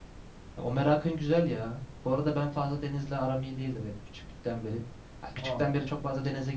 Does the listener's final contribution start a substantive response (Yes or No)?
No